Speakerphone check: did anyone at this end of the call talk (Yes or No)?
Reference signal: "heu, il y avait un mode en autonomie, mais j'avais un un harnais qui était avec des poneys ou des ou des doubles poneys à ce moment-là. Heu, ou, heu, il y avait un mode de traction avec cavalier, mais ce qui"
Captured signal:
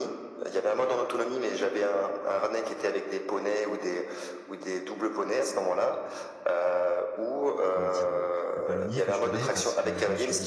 Yes